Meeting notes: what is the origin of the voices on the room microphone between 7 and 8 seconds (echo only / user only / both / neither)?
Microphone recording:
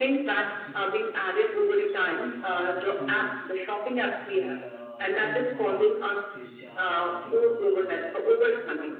both